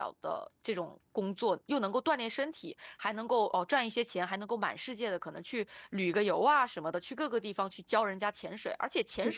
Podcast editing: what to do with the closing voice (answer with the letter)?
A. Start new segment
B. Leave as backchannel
B